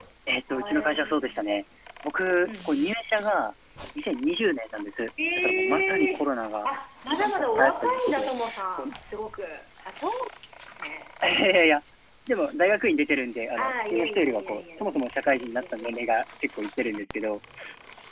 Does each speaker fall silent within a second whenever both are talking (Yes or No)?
No